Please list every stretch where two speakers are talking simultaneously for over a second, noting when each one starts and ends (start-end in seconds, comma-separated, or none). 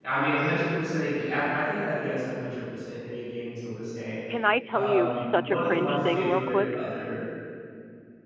4.7-6.7